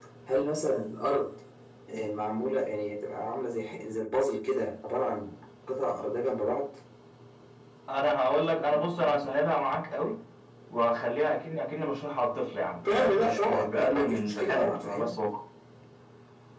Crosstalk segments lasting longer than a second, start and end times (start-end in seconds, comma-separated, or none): 12.9-15.2